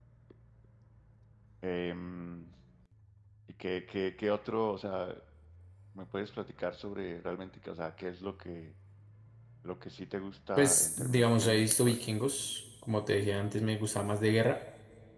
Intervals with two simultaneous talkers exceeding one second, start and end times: 10.6-12.1

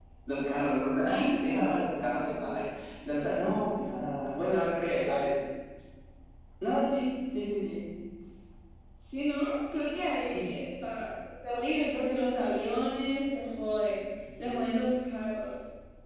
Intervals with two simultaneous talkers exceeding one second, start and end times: none

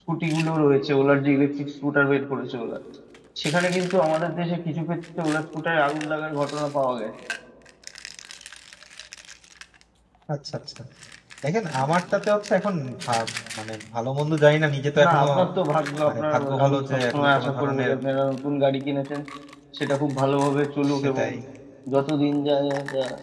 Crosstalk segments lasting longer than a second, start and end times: 16.1-17.9

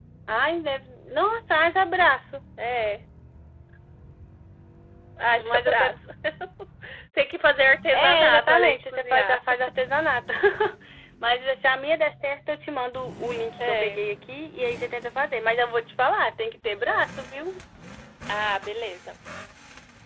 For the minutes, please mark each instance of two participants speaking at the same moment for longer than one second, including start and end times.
7.9-9.4

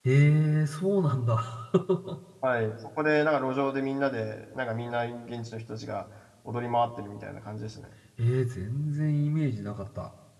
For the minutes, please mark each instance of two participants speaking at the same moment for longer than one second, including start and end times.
none

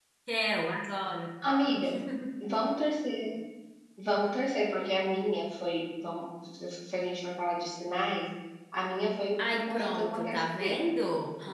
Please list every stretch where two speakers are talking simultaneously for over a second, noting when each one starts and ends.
9.4-10.8

